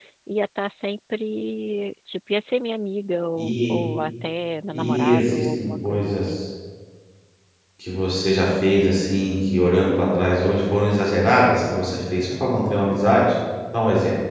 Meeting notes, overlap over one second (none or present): present